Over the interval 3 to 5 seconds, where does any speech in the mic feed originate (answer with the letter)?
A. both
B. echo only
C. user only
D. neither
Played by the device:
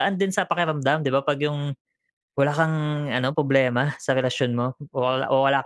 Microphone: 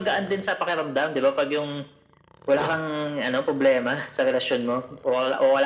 B